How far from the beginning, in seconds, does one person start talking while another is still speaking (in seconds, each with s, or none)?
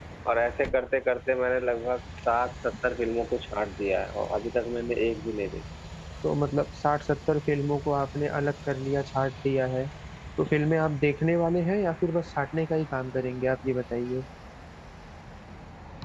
none